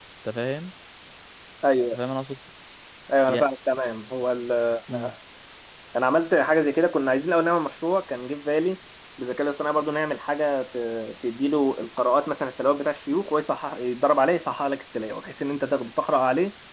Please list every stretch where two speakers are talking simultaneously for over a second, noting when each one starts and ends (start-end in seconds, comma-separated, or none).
none